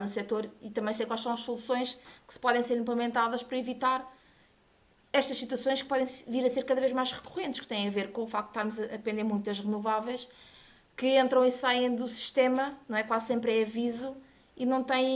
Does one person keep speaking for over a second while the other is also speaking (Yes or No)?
No